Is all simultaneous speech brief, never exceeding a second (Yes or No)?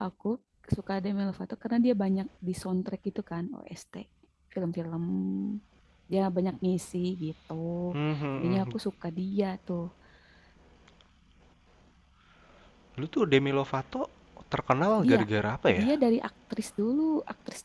Yes